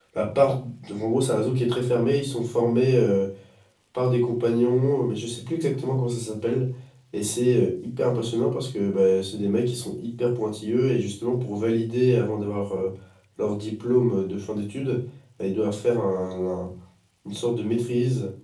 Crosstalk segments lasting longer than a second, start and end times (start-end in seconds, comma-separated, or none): none